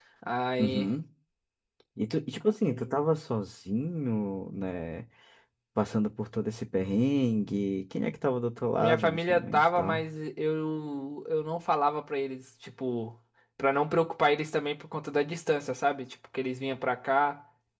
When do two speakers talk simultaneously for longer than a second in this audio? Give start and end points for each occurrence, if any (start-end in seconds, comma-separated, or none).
8.8-10.0